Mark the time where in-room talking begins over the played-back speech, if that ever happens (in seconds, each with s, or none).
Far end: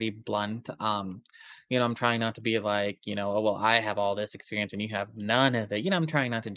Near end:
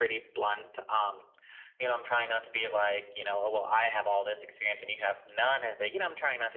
none